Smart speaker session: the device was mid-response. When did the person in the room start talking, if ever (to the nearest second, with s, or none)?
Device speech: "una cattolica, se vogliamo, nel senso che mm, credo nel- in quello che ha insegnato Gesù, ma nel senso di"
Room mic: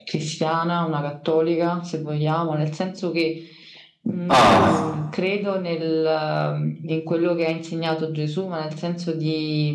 4 s